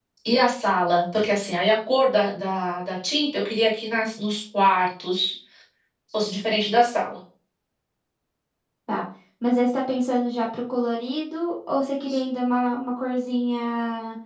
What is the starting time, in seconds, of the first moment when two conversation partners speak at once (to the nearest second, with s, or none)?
none